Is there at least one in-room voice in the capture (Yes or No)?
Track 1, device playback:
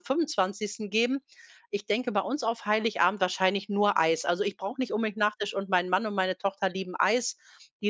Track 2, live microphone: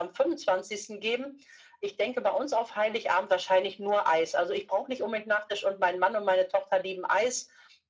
No